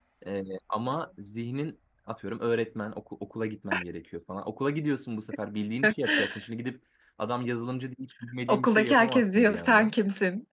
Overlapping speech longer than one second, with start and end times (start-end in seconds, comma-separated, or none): 8.5-9.9